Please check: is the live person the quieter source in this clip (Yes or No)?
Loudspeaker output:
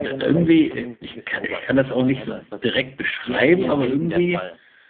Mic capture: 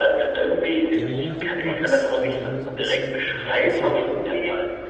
Yes